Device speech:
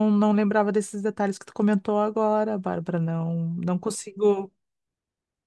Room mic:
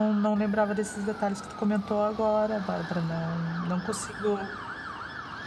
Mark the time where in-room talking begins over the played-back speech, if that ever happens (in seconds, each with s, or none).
none